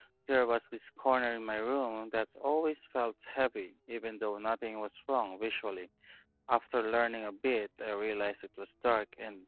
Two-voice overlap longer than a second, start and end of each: none

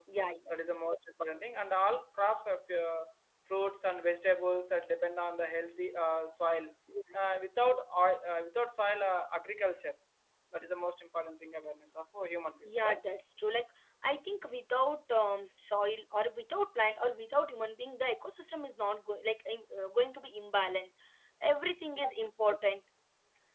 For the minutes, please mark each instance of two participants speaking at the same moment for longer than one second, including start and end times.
none

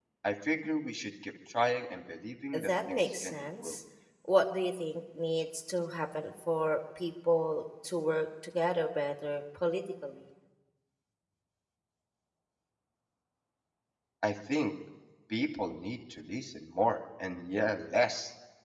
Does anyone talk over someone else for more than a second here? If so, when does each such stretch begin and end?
2.5-3.8

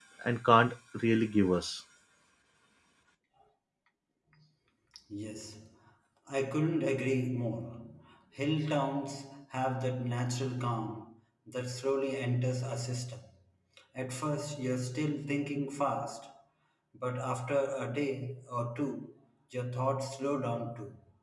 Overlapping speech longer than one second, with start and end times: none

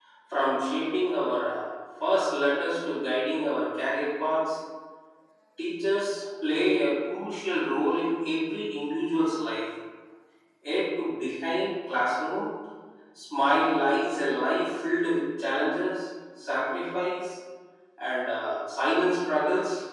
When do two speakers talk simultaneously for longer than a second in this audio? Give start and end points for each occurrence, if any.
none

